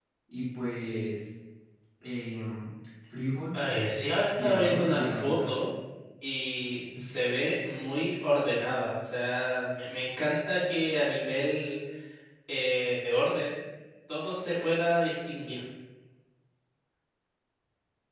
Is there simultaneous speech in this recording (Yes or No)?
Yes